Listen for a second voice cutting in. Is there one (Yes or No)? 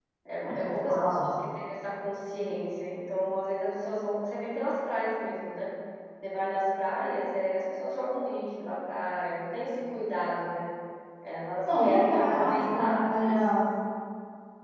Yes